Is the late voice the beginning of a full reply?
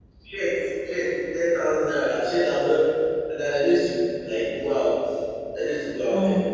No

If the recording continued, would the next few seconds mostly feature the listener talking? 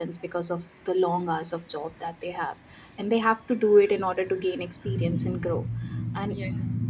No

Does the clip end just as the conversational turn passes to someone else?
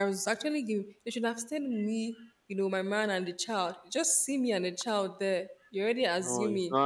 Yes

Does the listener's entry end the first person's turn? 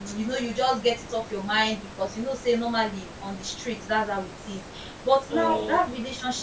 No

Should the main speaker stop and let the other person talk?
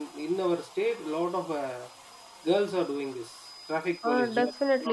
Yes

